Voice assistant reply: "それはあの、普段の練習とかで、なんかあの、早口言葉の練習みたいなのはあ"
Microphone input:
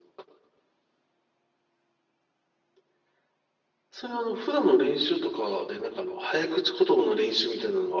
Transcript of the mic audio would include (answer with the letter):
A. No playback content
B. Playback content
B